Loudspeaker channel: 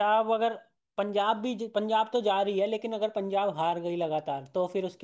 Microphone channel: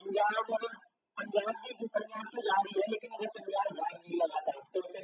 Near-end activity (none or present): none